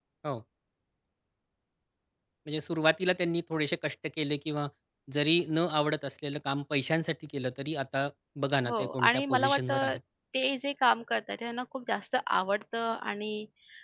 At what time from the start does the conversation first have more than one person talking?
9 s

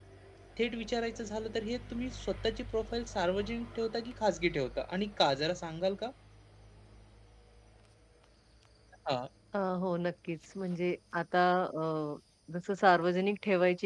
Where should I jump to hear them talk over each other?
none

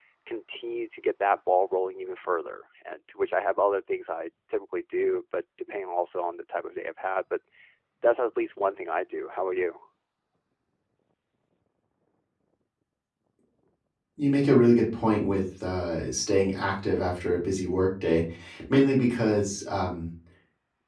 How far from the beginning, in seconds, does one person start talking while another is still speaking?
none

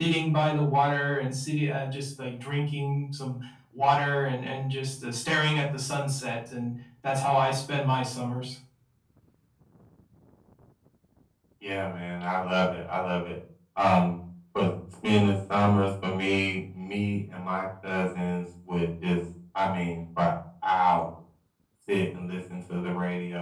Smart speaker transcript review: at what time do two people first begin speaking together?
none

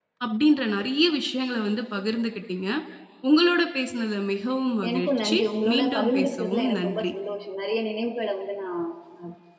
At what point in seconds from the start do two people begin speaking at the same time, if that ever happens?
5 s

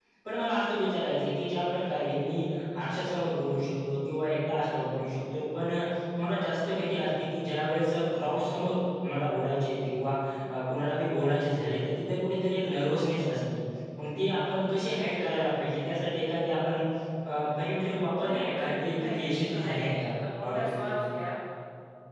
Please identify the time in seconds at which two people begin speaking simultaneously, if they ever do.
18 s

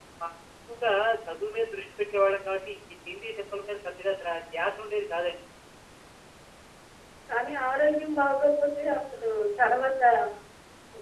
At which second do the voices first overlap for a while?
none

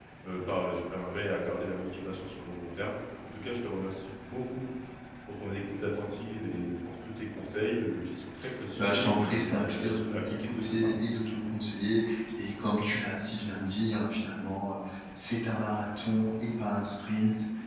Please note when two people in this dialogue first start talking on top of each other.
9 s

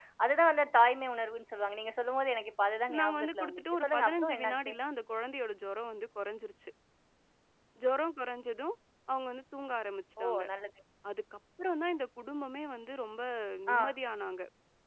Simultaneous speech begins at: 3 s

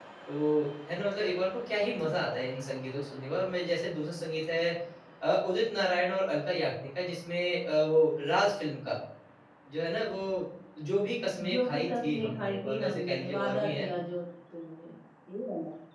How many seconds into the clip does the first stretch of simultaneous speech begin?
11 s

